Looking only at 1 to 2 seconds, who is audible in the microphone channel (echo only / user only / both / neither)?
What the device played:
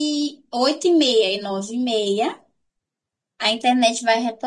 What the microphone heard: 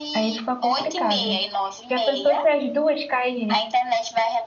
both